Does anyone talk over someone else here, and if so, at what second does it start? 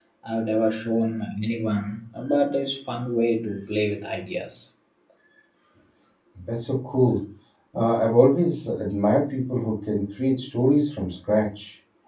none

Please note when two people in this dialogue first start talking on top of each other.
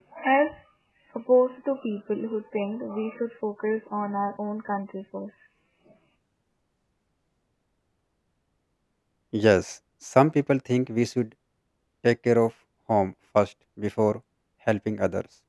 none

